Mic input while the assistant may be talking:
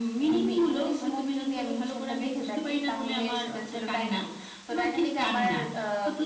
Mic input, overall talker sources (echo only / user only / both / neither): echo only